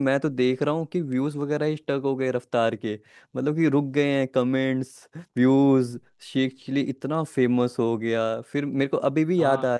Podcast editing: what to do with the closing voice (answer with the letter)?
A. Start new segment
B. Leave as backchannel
B